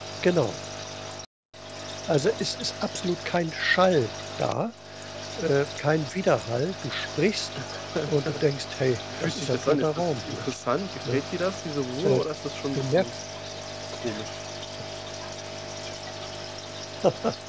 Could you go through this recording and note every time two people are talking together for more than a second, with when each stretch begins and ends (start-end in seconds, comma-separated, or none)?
9.2-10.5